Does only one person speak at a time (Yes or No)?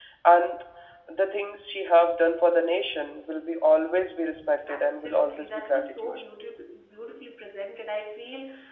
No